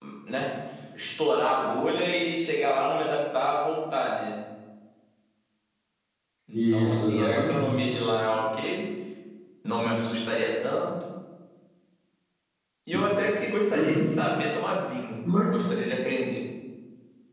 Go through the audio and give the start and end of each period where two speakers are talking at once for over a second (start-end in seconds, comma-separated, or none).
6.5-7.8